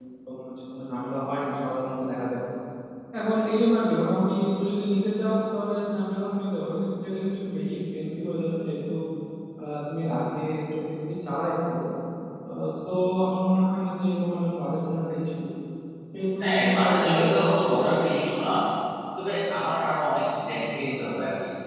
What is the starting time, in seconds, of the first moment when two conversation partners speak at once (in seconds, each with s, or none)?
16.4 s